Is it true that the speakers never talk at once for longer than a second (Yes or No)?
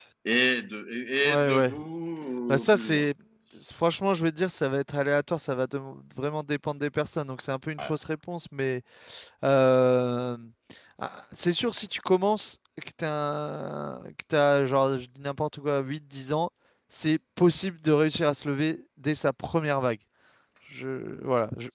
Yes